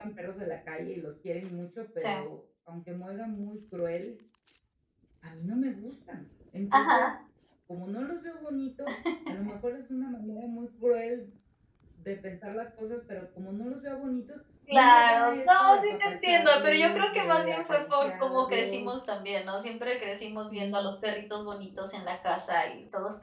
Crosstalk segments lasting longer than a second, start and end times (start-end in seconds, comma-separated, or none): 14.7-18.9